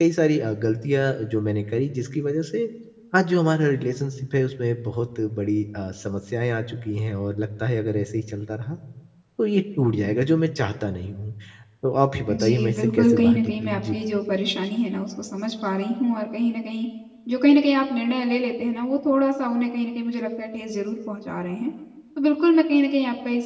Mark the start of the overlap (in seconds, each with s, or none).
12.3 s